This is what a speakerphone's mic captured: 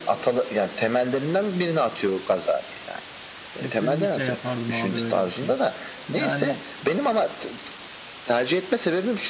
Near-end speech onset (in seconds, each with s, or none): 3.5 s